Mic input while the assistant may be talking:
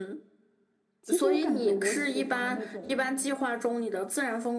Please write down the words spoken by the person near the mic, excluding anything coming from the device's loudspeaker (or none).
其实我感觉我喜欢那种